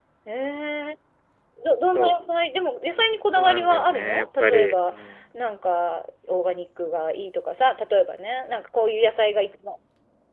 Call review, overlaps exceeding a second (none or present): present